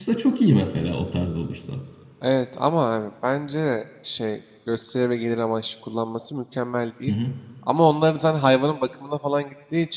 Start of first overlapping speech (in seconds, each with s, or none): none